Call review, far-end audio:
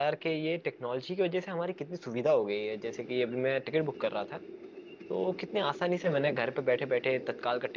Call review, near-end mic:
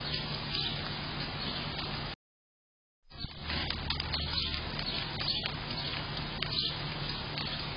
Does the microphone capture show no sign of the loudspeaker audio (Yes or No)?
Yes